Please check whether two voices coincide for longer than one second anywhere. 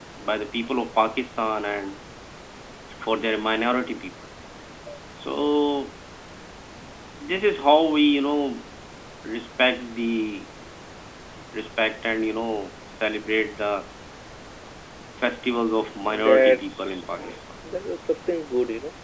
Yes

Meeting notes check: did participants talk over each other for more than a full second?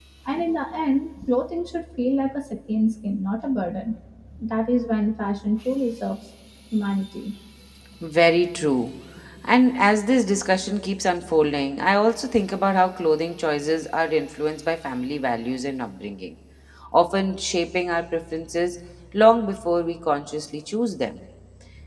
No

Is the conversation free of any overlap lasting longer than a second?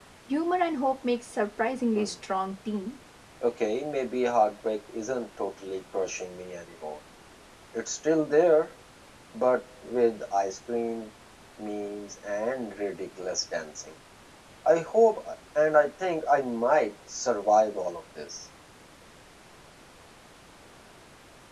Yes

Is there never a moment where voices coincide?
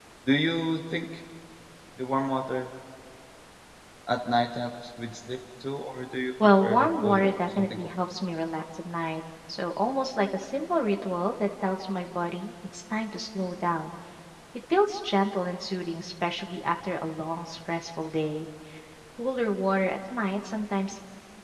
No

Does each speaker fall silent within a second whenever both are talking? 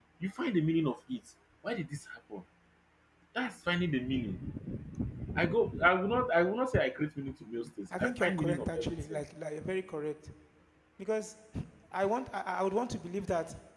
No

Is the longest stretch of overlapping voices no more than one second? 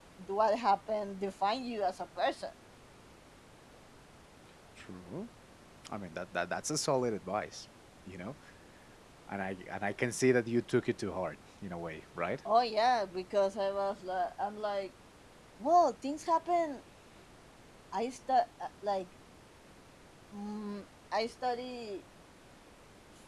Yes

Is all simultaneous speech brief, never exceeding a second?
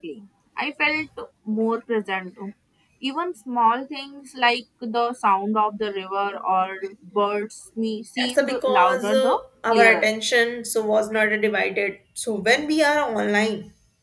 No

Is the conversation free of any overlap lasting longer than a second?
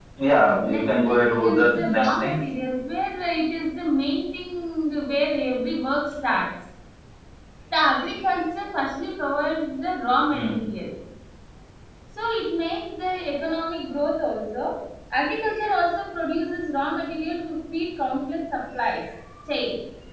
No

